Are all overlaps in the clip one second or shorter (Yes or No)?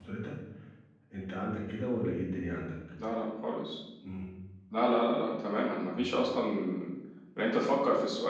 Yes